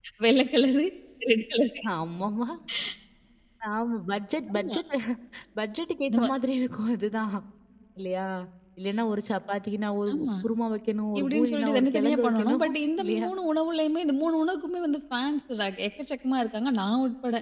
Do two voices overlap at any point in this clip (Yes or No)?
Yes